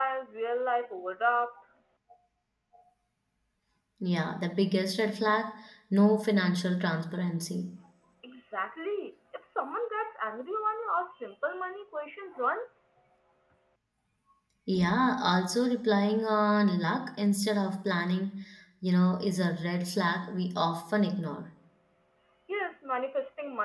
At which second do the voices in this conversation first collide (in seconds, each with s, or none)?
none